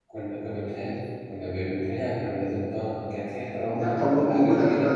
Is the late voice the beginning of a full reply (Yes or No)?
Yes